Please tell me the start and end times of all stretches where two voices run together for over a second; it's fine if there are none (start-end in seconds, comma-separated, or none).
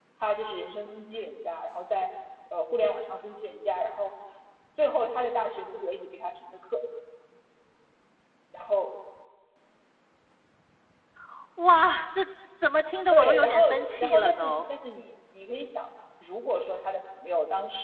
13.1-14.6